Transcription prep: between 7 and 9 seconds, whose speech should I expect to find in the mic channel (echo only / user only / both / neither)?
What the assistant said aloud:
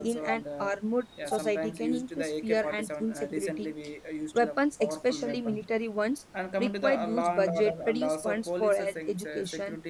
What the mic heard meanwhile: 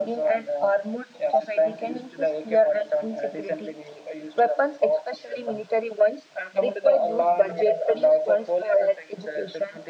echo only